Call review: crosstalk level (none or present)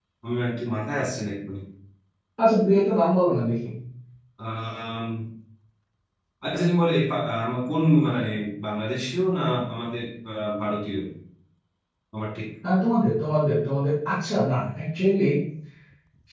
none